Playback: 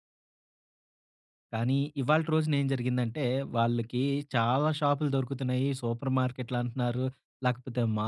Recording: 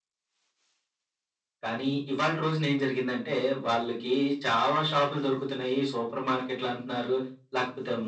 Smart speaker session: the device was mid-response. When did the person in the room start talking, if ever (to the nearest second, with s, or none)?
none